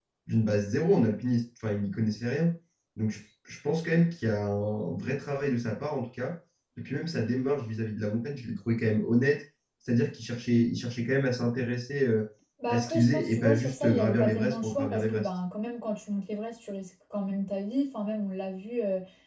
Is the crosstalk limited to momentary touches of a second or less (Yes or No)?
No